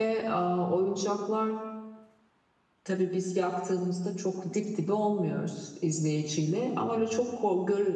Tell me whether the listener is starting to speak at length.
No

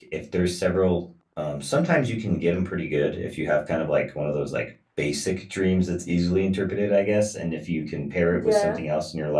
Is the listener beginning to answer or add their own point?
No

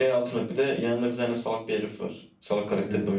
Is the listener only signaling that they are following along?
No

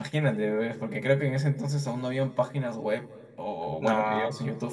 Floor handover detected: No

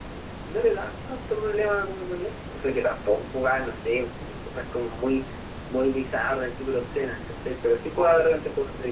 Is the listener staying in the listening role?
Yes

